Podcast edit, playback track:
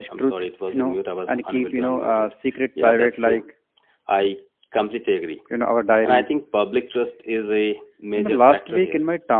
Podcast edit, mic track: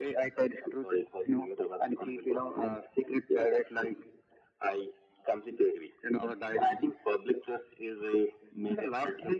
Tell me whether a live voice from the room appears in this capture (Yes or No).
No